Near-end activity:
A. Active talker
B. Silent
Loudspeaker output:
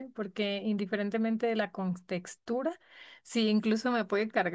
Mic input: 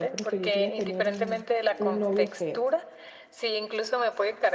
A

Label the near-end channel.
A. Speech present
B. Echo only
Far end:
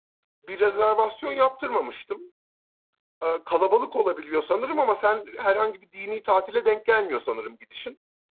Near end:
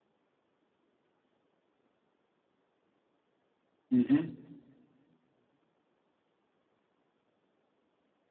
A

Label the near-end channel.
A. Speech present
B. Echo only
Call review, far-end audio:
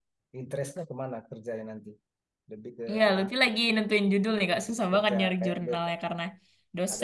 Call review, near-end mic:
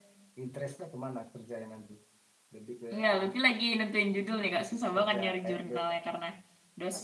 B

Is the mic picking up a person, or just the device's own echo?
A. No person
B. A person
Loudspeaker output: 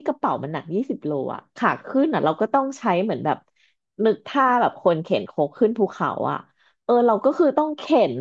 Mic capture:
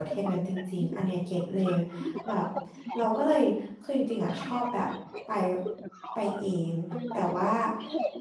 B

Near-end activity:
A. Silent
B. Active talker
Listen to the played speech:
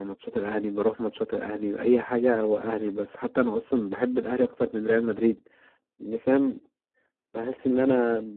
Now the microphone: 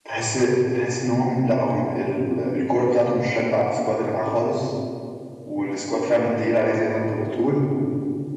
B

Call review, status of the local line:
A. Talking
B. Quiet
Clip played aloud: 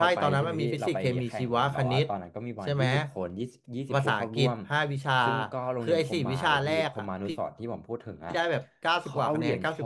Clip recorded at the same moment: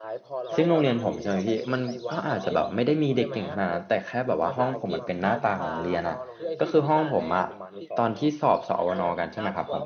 A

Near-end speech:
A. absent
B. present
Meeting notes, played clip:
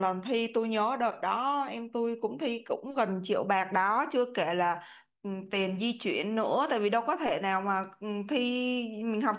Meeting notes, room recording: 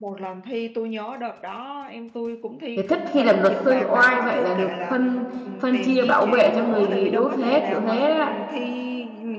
B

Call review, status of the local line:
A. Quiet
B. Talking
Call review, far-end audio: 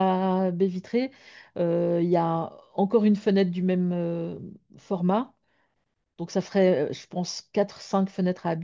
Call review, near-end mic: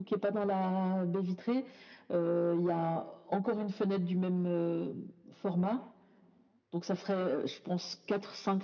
A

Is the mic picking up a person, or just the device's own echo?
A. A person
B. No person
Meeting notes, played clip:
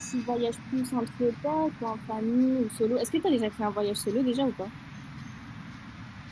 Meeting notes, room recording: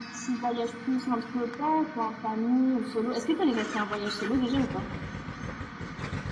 B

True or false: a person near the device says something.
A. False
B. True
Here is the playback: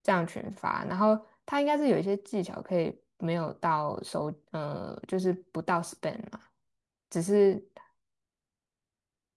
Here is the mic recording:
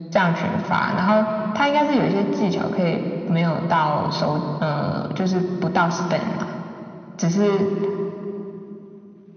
A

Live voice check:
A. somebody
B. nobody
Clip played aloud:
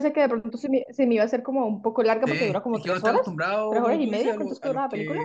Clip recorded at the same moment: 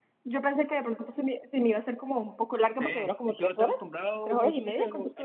B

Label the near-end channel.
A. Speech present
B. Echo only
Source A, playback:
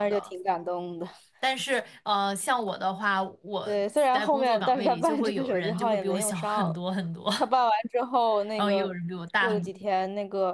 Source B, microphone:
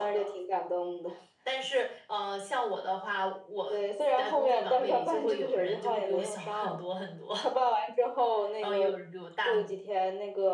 B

